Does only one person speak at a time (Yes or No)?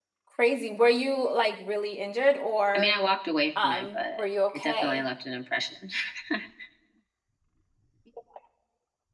No